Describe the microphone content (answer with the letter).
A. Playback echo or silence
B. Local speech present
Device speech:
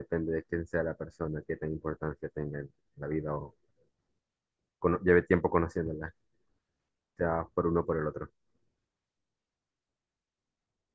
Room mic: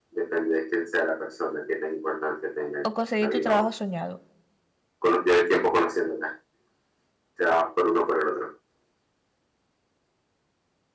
B